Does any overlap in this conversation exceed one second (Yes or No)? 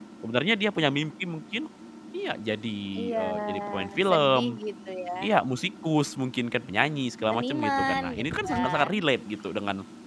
Yes